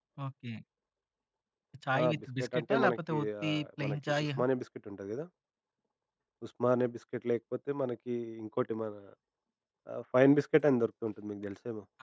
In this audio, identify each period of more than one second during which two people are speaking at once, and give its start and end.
2.0-4.3

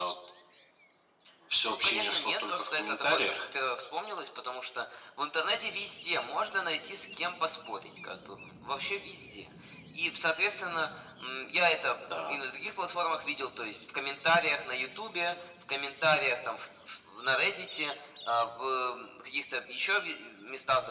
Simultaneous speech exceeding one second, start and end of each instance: 1.7-3.4

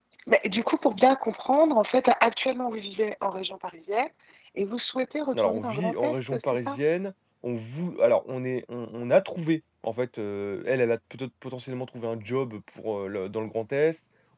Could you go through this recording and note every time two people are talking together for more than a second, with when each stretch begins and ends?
5.3-6.8

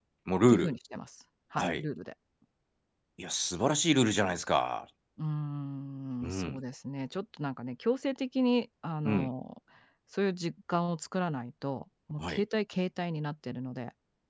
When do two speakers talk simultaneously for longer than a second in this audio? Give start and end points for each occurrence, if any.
none

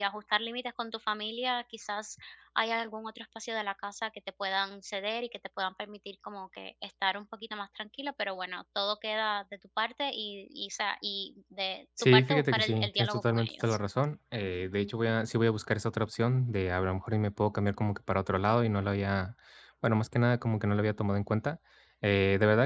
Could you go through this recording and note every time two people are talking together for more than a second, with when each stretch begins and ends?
12.0-13.8

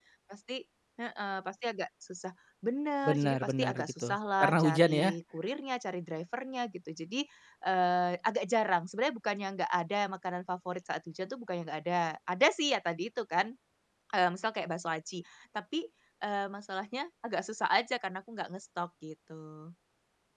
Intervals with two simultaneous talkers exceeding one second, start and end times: 3.0-5.1

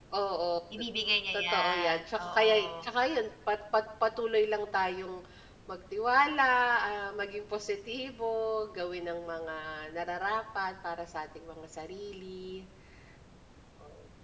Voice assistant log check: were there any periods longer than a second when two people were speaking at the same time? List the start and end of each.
1.3-2.9

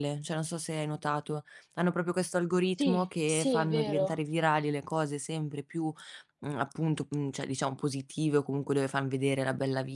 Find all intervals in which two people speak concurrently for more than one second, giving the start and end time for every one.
2.8-4.2

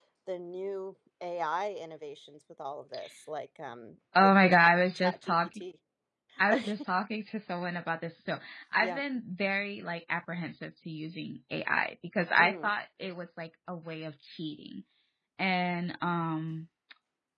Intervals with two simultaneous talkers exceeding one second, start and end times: 4.2-5.5

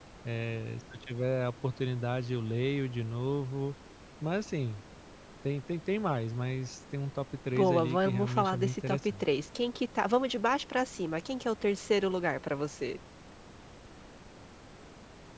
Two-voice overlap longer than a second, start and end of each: 7.5-9.2

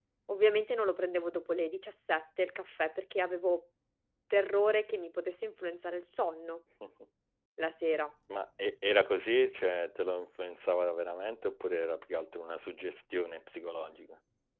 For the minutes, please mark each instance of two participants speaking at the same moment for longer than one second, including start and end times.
none

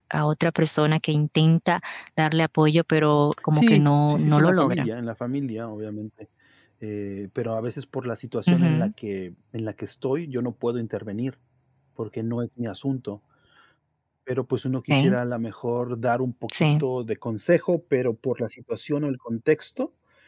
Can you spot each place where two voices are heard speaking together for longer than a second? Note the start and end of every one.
3.5-4.9

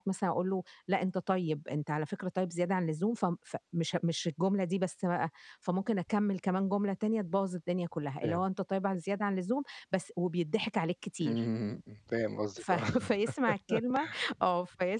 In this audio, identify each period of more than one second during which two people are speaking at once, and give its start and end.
none

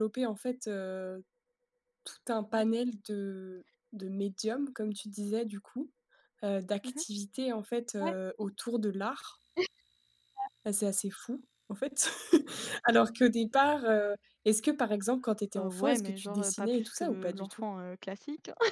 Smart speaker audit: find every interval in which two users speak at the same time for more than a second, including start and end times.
15.6-17.6

